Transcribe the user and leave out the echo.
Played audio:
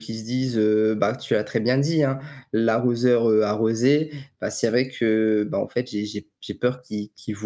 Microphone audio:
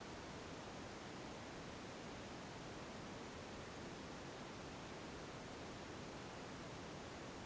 none

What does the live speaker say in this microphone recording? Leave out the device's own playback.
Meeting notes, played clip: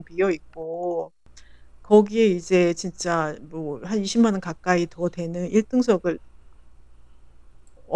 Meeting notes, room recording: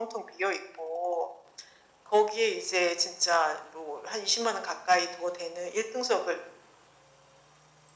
none

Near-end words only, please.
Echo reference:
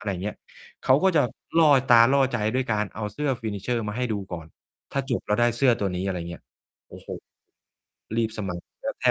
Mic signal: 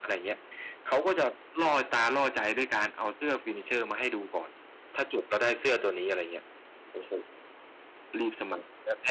none

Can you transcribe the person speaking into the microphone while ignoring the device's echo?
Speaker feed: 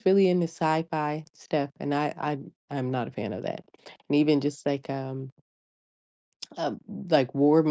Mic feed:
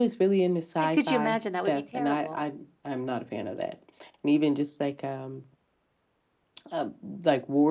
and could you imagine? That would be terrible.

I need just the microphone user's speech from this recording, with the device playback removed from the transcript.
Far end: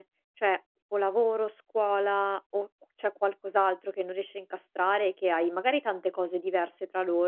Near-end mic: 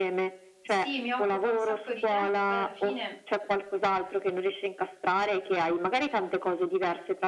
Sì, mi occupa un sacco di tempo, poi alla fine

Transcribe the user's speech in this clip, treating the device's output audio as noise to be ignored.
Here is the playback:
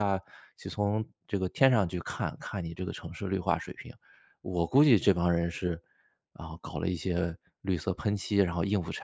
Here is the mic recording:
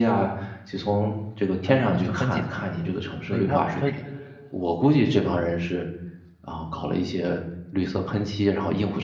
它可能就分解了，所以它它

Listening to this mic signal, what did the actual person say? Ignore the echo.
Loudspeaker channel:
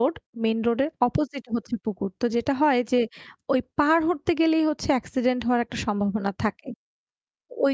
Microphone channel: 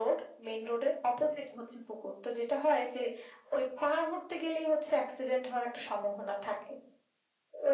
none

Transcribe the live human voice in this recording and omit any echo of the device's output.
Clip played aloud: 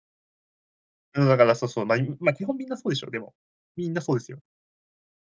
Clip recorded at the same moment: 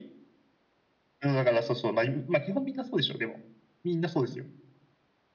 none

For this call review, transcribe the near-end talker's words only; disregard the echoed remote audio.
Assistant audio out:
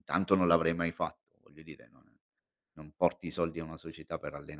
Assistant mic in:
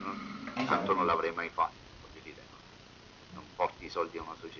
Diciamo che

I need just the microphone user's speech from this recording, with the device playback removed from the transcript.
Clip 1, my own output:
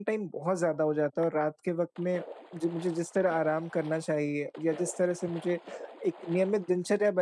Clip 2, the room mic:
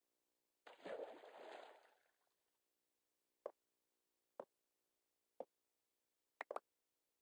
none

